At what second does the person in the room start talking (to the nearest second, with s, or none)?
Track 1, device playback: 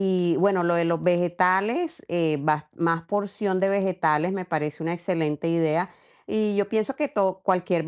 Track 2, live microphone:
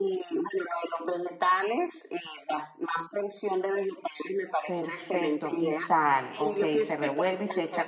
5 s